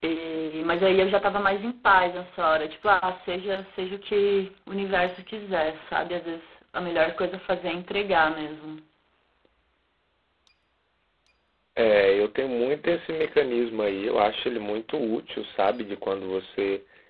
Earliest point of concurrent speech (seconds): none

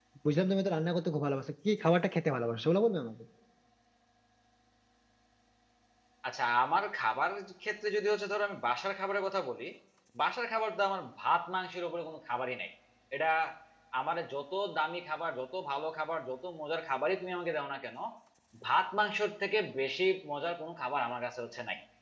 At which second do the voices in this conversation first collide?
none

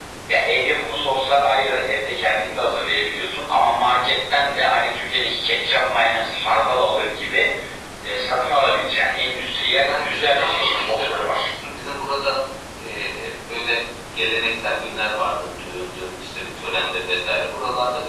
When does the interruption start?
9.7 s

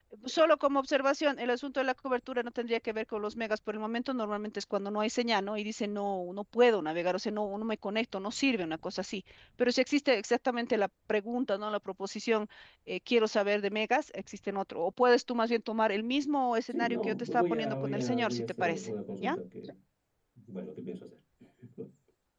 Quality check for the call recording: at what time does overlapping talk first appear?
16.7 s

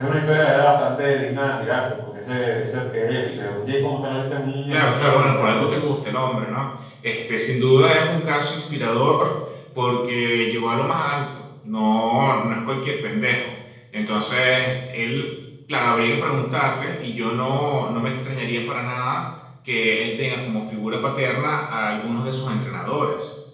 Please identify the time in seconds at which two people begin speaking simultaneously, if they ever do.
4.7 s

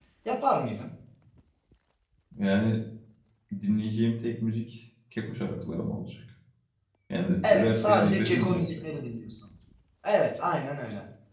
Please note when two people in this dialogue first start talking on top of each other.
7.4 s

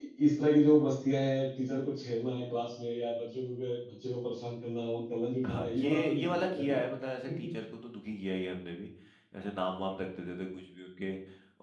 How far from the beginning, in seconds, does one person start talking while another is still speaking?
5.4 s

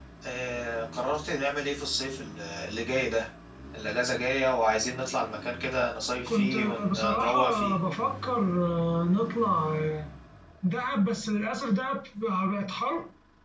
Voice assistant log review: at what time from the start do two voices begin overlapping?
6.3 s

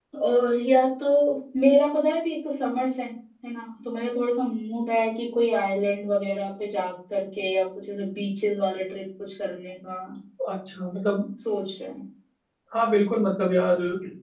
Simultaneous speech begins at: none

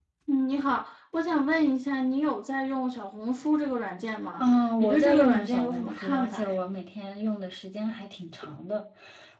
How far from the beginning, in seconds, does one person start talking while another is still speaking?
4.4 s

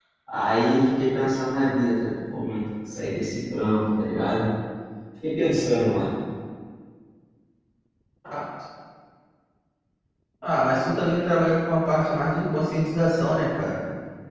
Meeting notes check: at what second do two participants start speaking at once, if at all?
none

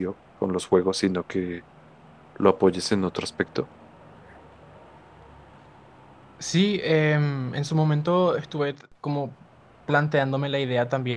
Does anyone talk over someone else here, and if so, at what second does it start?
none

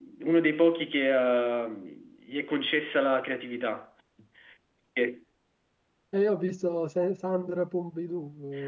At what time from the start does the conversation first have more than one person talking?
none

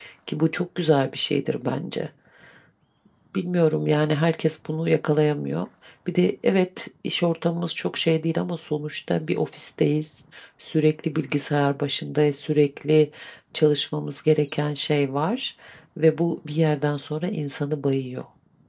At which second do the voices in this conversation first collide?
none

